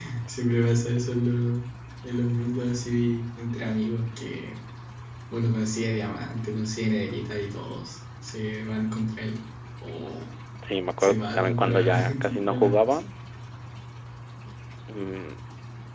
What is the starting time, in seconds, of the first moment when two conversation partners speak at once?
11 s

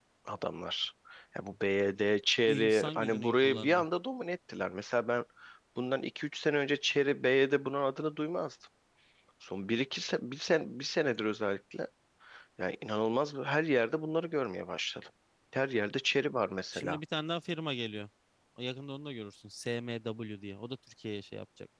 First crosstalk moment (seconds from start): 2 s

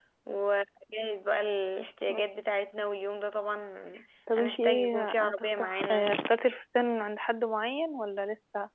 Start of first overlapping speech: 4 s

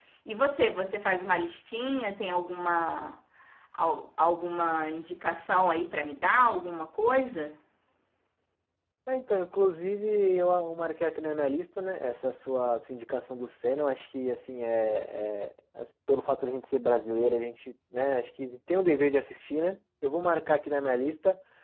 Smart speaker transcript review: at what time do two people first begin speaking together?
none

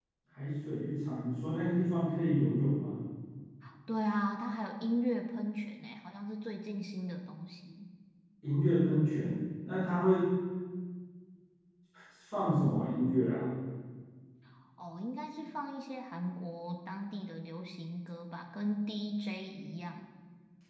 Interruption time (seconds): none

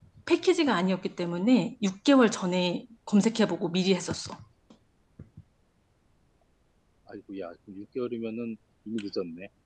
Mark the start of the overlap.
none

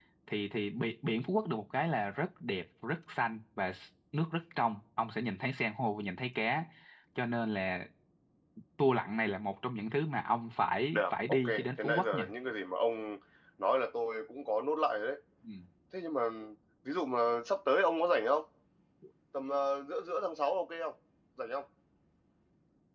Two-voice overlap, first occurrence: 11 s

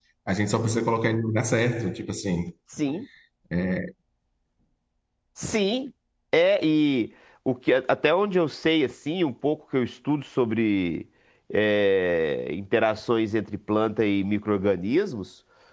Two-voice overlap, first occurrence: none

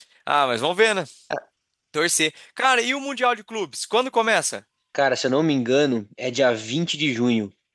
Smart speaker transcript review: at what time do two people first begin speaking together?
none

